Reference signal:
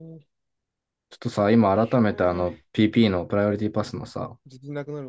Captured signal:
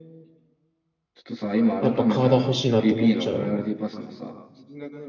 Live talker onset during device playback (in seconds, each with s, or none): 1.8 s